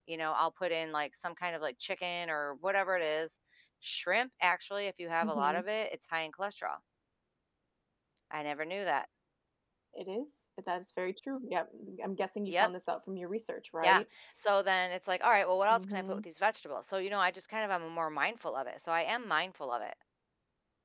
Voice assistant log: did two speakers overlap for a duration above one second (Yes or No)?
No